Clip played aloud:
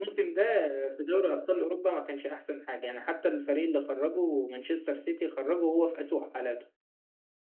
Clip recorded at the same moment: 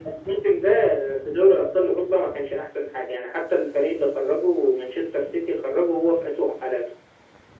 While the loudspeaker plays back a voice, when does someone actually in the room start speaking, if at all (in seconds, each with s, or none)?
none